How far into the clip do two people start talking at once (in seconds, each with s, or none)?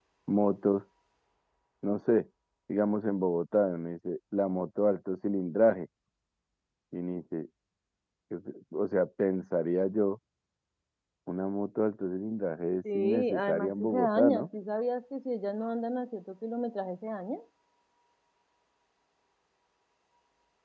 12.8 s